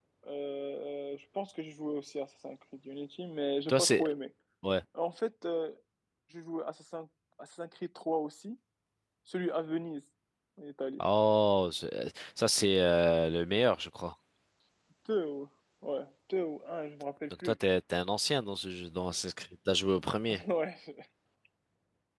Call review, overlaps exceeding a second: none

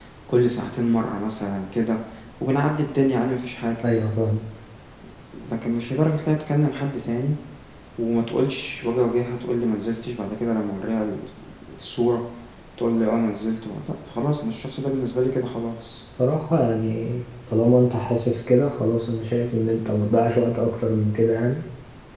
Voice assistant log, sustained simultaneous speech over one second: none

